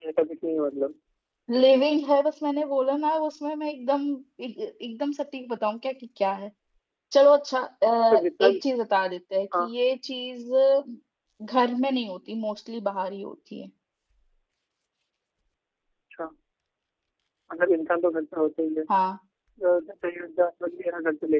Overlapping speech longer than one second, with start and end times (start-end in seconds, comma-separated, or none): none